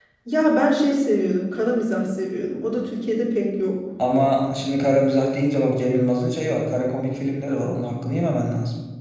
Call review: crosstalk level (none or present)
none